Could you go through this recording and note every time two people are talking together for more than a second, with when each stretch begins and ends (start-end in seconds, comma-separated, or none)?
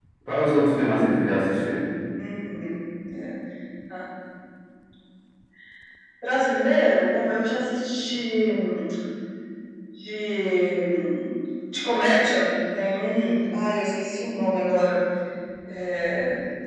none